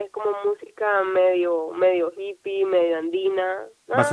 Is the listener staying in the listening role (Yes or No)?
No